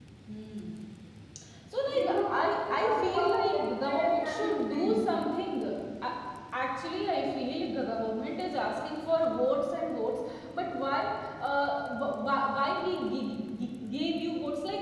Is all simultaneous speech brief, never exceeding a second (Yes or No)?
No